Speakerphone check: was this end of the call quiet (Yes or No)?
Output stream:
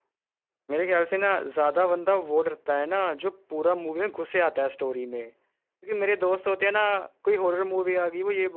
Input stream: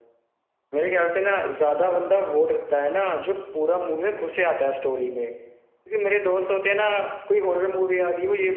Yes